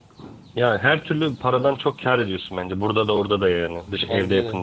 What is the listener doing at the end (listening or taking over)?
taking over